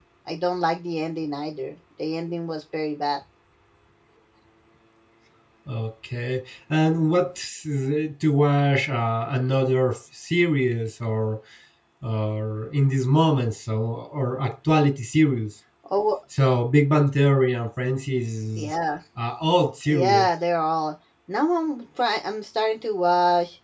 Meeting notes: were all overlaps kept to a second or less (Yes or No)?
Yes